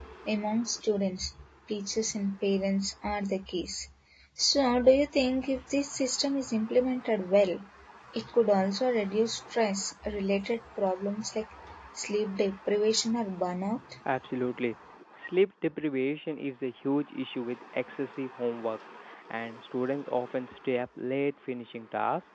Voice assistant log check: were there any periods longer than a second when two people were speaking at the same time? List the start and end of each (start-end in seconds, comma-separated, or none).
none